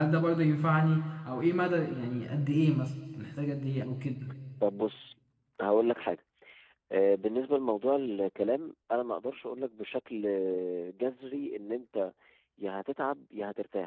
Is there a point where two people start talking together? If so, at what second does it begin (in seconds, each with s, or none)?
none